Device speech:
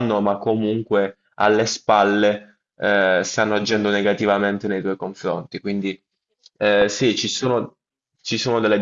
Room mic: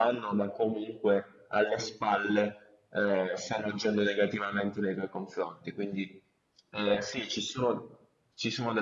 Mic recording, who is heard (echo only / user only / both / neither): echo only